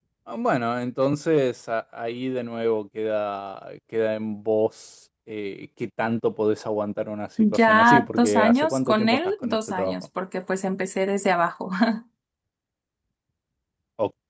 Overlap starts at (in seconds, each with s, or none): 7.4 s